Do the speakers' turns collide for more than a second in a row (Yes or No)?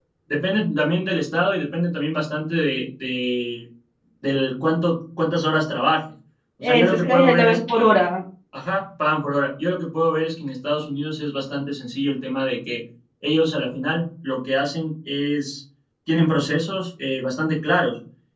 Yes